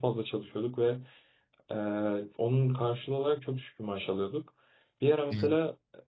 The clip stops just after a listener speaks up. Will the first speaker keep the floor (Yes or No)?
Yes